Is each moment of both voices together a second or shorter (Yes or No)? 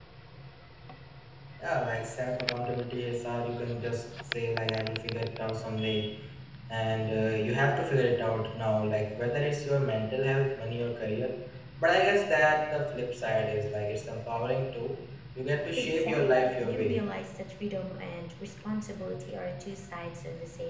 No